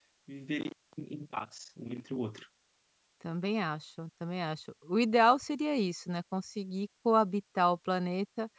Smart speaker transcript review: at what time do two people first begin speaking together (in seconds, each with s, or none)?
none